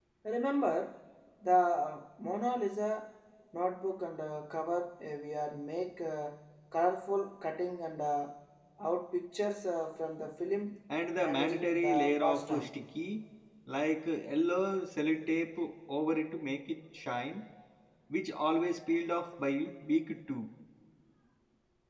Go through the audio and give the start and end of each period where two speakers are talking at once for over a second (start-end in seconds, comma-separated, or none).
11.2-12.7